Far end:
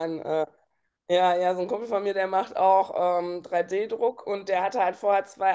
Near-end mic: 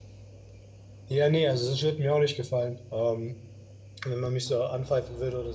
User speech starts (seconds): 1.1 s

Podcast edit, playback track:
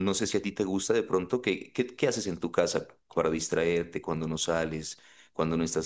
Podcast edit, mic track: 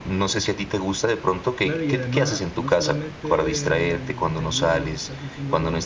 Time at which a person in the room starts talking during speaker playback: 1.6 s

